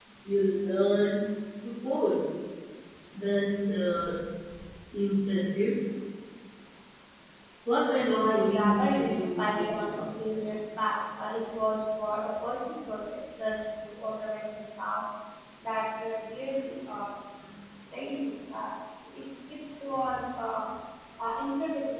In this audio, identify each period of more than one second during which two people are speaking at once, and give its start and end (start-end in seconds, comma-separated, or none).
8.1-10.0